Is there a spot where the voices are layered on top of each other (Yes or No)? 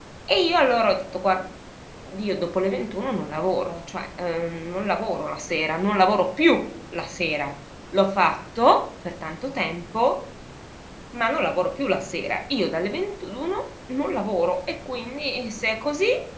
No